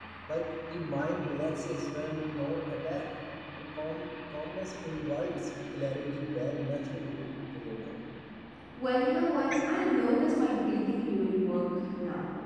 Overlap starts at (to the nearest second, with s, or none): none